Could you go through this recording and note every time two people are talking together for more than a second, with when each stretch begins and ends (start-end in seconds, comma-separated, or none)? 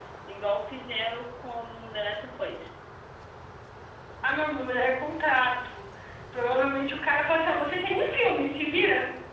none